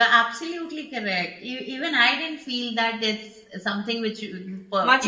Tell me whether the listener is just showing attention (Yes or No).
No